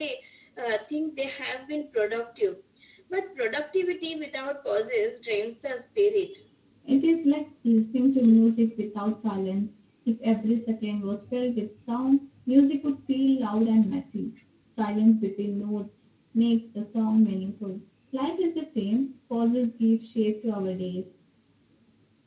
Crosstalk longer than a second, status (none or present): none